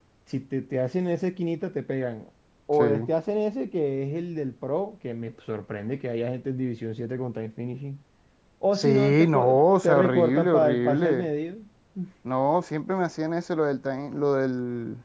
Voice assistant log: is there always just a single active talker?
No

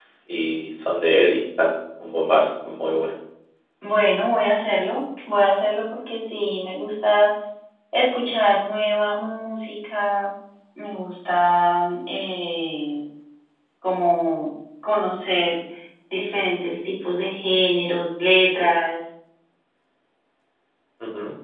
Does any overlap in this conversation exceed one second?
No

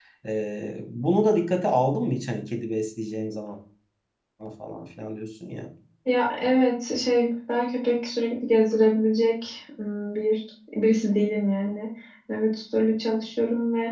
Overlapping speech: No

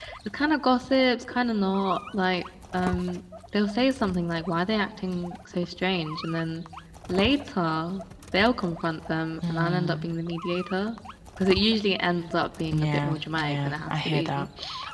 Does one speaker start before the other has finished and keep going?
Yes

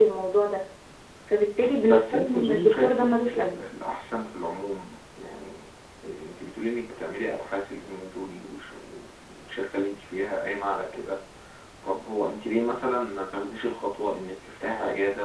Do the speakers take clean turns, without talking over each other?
No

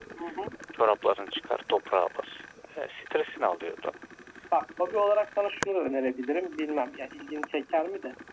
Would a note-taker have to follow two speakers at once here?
No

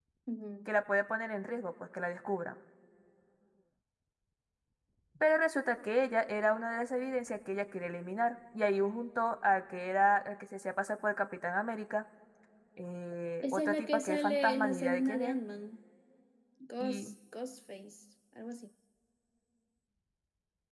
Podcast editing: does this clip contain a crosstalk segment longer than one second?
Yes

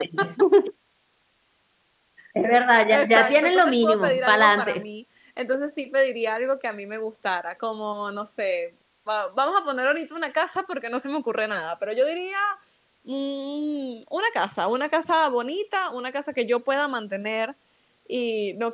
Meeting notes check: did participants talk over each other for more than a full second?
Yes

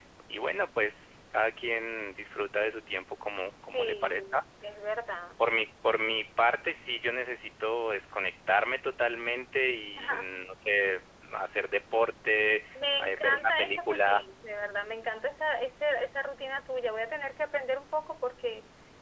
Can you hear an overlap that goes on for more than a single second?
Yes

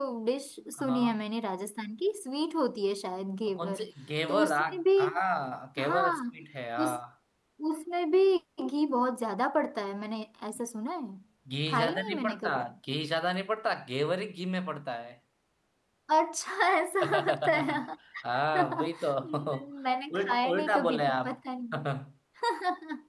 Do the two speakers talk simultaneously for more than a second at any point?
Yes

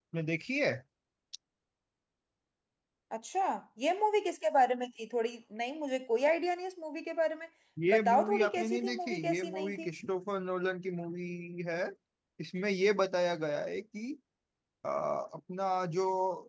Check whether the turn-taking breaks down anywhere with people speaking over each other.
Yes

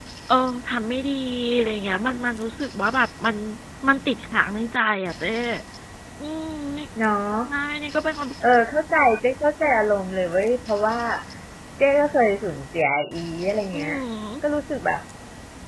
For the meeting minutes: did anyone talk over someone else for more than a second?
No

